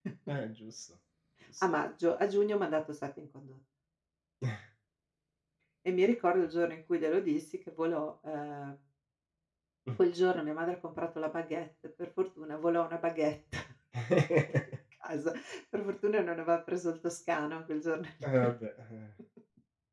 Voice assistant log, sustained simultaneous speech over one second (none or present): none